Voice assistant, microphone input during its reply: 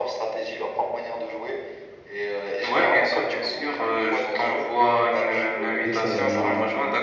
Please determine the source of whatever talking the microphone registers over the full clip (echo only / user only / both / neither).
both